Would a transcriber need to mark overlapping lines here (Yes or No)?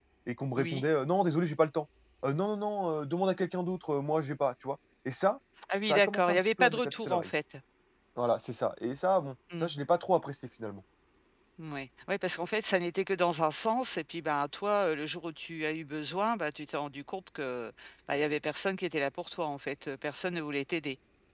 Yes